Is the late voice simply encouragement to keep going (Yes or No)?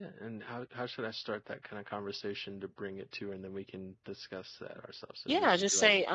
No